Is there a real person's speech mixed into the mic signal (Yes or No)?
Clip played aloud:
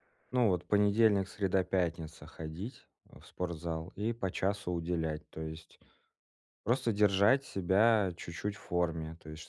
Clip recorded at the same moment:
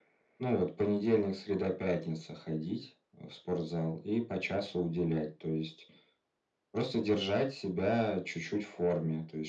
No